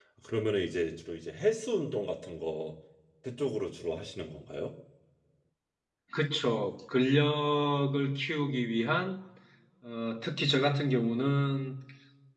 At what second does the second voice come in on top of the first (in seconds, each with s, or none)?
none